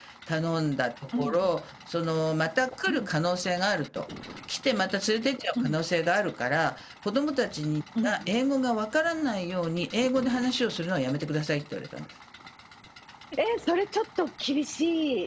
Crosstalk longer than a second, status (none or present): none